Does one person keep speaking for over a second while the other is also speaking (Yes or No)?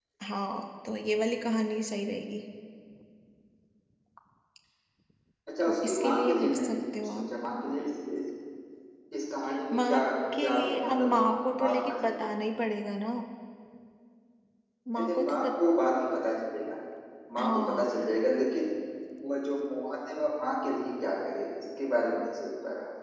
Yes